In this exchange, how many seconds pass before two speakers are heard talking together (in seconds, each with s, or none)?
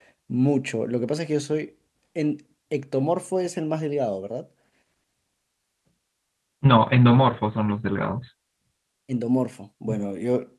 none